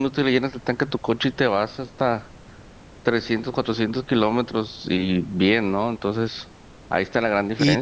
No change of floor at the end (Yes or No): No